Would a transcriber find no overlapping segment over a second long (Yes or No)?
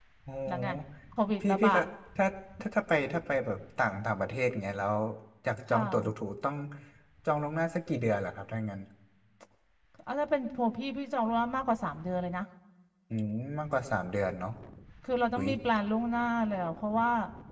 Yes